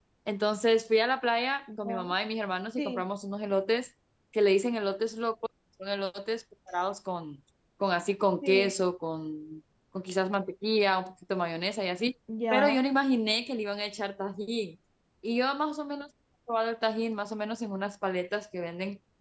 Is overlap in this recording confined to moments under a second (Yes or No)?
Yes